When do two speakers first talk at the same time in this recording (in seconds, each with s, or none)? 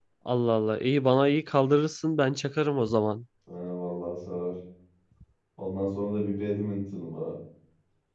none